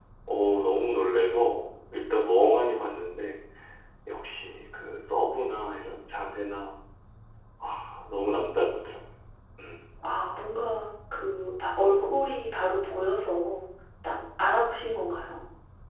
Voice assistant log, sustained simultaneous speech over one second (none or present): none